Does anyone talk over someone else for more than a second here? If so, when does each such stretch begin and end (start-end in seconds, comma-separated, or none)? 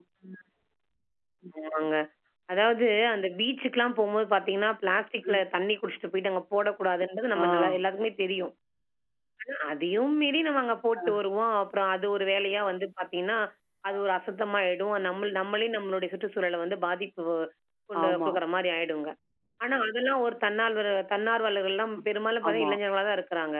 none